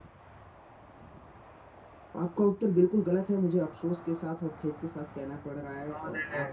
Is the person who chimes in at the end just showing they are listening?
Yes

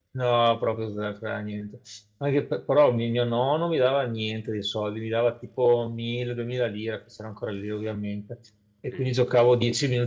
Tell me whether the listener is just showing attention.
Yes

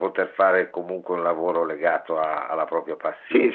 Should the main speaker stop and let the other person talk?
Yes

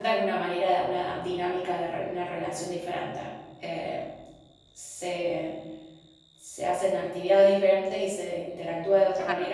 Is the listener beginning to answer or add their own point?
Yes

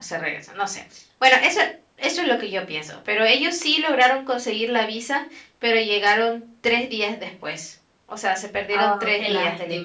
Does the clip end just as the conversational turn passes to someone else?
Yes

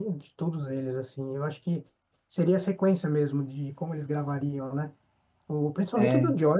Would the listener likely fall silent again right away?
Yes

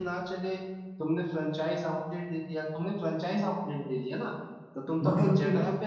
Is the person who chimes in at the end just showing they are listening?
Yes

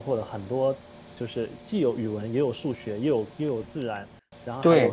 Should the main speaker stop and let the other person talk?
No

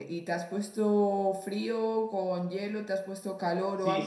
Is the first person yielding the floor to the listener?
Yes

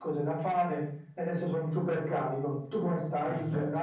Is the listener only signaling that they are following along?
No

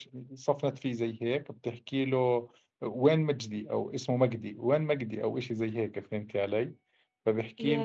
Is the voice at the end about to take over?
No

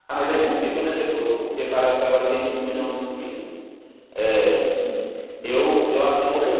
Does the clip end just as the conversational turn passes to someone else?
Yes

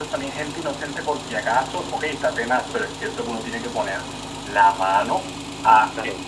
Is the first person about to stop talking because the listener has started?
No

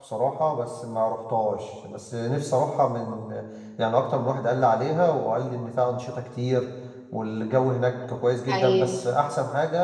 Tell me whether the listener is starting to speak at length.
No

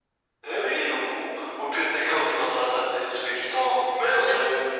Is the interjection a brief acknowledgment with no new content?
No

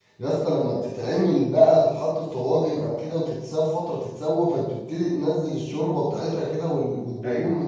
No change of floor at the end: Yes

